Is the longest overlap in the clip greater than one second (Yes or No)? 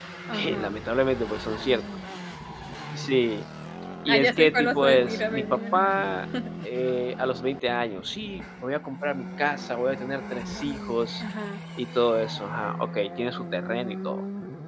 Yes